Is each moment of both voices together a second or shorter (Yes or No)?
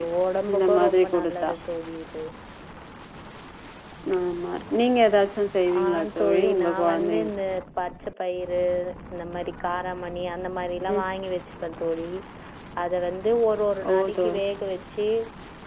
No